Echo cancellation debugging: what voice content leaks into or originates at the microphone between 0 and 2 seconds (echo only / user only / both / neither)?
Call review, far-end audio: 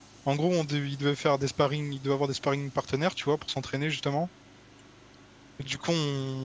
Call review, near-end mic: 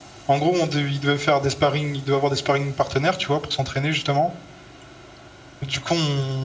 echo only